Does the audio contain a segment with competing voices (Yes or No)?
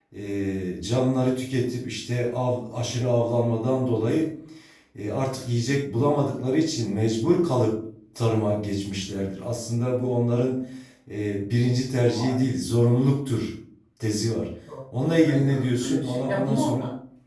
Yes